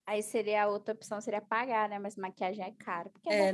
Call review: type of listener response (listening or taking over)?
taking over